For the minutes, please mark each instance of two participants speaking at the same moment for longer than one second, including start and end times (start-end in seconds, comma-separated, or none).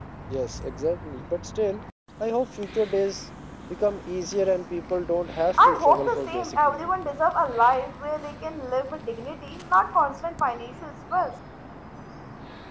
5.5-6.9